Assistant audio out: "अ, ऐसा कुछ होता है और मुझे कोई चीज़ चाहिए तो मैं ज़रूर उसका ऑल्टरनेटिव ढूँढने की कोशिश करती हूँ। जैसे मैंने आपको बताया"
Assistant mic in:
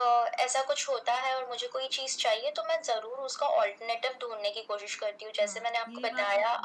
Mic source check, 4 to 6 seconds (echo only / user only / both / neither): both